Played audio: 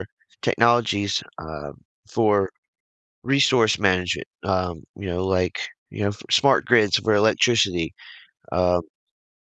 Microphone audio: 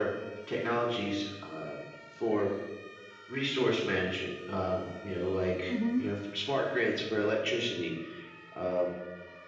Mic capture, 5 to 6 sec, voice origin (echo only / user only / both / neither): both